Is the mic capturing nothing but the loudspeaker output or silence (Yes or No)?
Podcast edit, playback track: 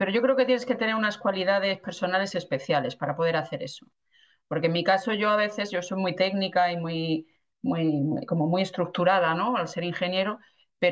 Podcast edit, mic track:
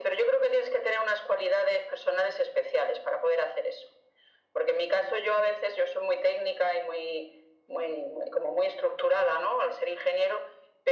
Yes